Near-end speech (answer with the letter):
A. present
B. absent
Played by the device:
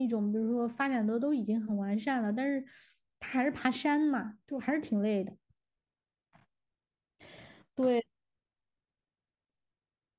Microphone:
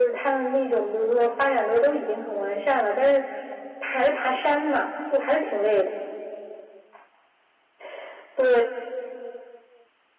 B